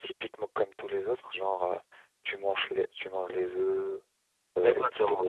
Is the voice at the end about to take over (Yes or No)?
Yes